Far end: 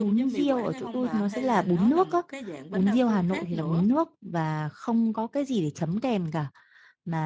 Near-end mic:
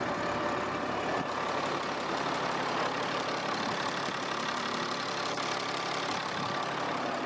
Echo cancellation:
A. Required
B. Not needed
B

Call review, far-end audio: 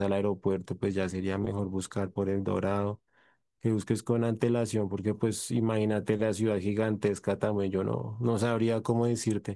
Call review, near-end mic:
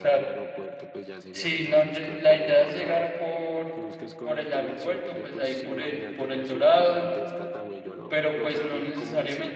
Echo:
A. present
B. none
A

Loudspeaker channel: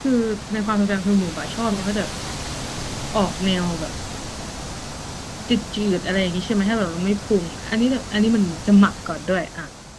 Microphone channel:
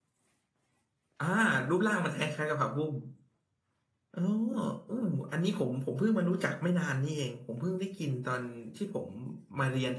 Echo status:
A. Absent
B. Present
A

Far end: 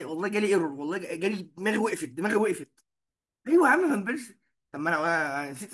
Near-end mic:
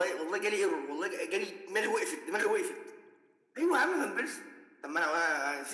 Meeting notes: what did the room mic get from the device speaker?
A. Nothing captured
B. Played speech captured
B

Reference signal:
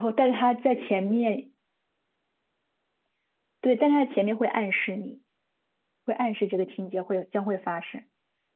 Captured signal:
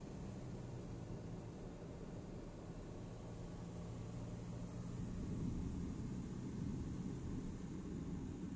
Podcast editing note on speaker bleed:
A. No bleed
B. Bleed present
A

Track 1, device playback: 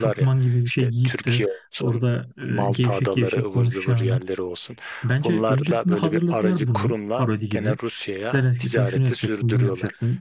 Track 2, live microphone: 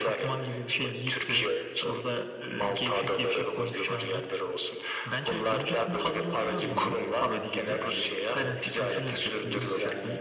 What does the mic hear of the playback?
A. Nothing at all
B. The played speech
B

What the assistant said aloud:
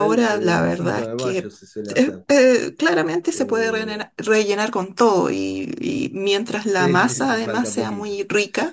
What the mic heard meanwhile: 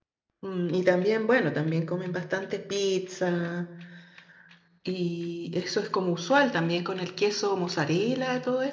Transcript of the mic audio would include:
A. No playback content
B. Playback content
A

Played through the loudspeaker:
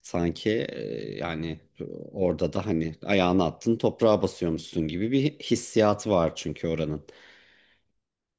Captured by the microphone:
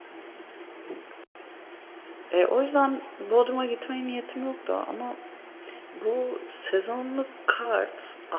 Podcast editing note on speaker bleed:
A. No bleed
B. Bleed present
A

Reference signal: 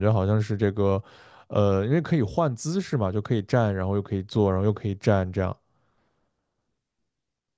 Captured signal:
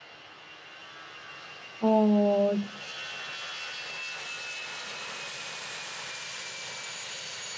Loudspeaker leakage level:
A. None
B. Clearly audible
A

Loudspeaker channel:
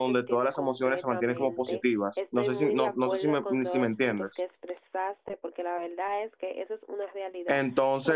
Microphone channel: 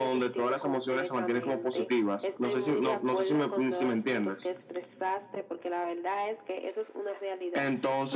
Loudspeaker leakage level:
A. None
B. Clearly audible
B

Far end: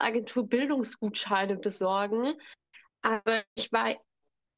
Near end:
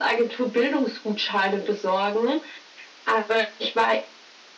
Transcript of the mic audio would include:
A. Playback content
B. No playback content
A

